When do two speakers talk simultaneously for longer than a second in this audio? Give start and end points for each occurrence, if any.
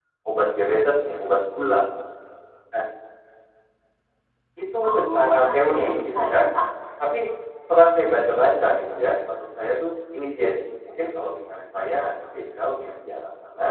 4.9-6.5

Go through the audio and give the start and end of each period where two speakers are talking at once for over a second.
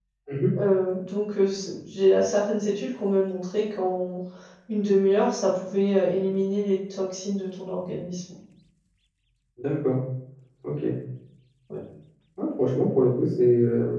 none

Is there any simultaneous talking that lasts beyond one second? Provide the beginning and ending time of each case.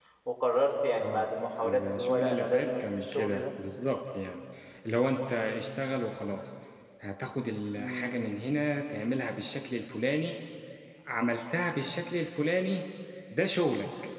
1.6-3.4

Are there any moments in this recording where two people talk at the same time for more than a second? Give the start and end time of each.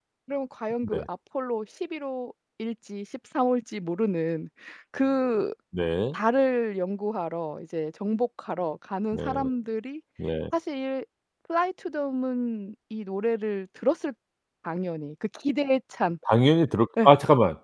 none

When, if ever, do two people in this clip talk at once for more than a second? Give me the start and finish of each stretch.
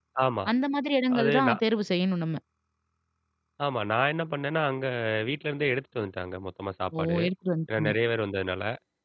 none

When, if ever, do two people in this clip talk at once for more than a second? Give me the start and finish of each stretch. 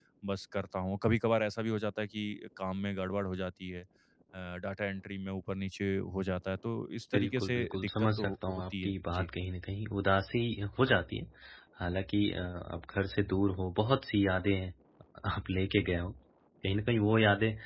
7.1-9.3

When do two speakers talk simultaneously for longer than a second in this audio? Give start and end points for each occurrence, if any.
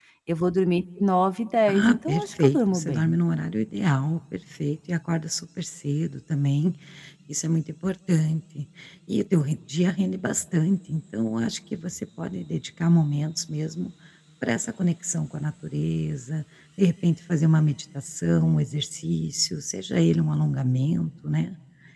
1.7-3.1

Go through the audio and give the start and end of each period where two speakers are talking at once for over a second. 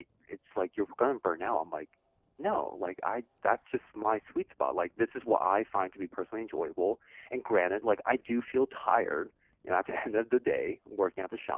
none

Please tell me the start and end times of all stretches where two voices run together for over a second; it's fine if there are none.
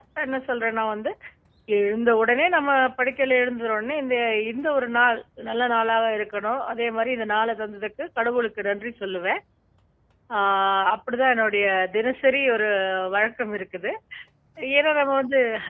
none

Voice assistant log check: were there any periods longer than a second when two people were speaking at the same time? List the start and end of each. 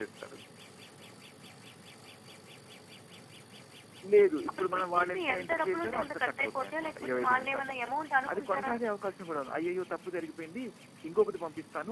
4.5-7.8

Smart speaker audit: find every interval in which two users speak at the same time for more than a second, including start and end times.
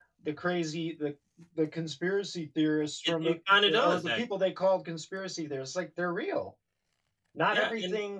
none

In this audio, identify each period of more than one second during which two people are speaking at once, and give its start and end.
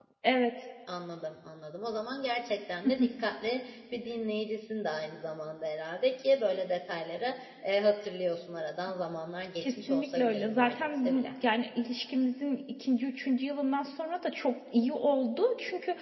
9.6-11.3

